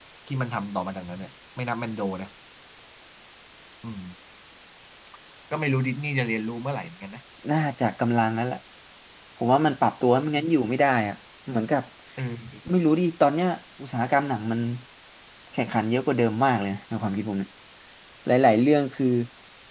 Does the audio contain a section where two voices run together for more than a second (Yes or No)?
No